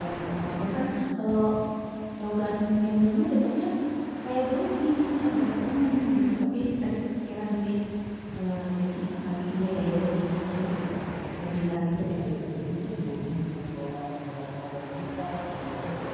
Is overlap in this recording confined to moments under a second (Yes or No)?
Yes